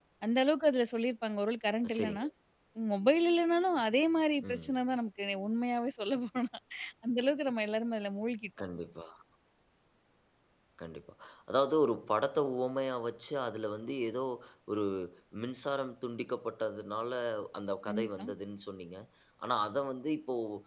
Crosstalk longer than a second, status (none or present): none